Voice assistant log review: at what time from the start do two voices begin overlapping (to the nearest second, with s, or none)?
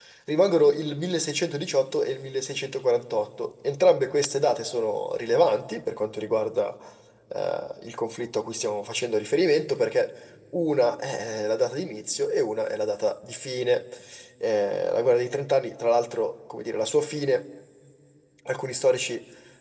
none